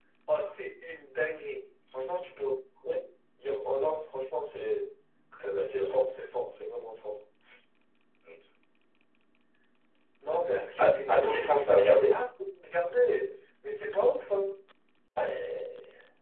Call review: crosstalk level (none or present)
present